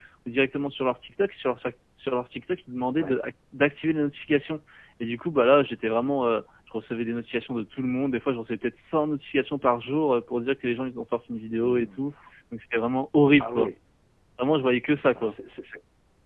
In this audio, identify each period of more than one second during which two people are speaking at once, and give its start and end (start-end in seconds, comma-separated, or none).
none